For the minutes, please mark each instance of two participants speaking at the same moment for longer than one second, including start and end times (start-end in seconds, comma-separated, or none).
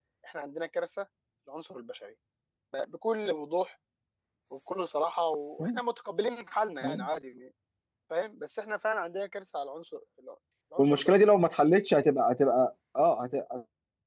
none